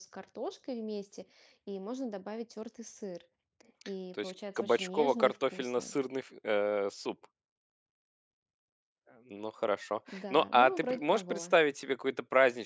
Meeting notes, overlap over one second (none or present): present